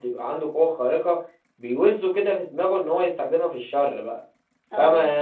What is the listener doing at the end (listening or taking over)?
listening